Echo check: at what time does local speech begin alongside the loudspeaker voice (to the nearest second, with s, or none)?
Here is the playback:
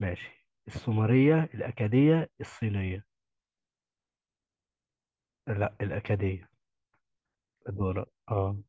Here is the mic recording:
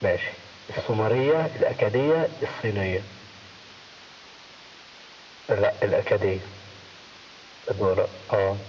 none